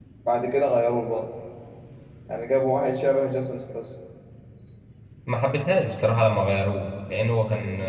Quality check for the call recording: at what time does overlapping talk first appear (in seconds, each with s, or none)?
none